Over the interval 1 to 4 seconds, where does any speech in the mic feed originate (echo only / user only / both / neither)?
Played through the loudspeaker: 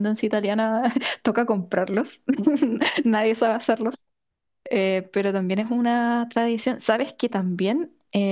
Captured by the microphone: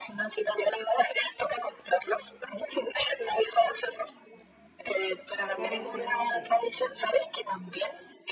echo only